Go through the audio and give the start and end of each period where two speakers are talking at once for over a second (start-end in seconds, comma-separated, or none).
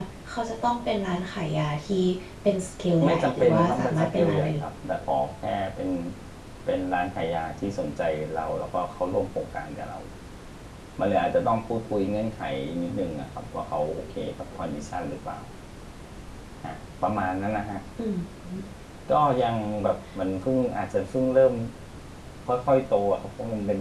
3.0-4.6